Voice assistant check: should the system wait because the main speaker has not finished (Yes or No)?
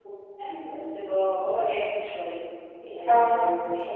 Yes